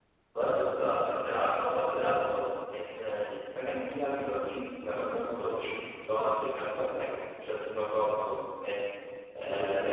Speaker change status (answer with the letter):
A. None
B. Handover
A